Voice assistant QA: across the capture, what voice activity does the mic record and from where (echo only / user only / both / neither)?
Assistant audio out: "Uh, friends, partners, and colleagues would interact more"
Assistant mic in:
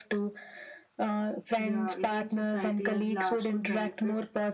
both